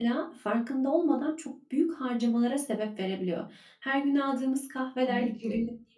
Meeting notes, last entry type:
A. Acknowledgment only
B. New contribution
A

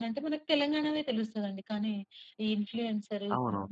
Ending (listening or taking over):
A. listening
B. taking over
A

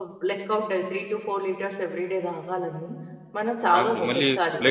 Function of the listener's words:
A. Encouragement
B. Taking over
B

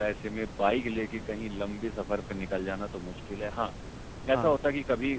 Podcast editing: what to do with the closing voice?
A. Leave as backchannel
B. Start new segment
A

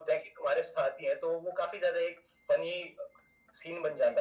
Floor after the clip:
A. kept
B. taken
B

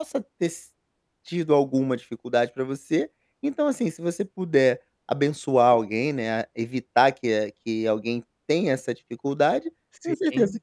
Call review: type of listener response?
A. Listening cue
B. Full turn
A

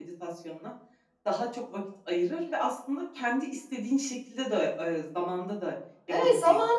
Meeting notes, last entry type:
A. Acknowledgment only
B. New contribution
B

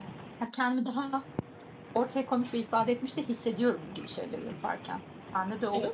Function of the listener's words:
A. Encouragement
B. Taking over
B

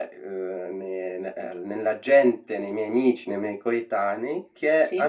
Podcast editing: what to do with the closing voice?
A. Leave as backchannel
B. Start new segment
A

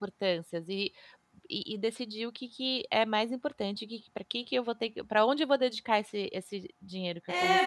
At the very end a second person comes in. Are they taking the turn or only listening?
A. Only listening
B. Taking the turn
B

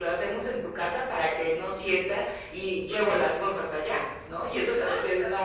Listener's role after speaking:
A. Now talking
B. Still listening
A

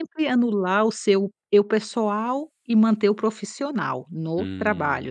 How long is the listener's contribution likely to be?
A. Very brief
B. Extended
B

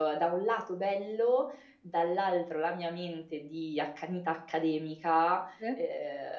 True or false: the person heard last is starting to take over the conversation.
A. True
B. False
B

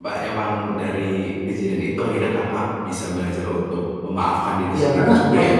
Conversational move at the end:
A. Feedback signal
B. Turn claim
B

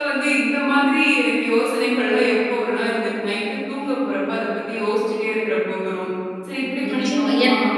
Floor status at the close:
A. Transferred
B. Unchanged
A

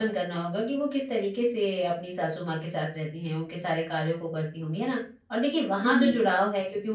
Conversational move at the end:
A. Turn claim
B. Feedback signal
B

